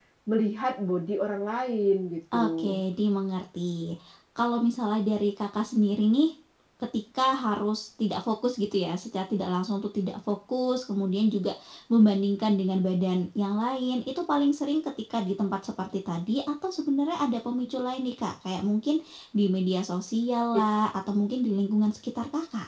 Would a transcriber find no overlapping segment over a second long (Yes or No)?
Yes